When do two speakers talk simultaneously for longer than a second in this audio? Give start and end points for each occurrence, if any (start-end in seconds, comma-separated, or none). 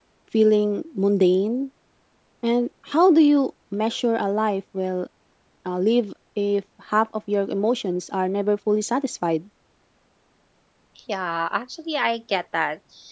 none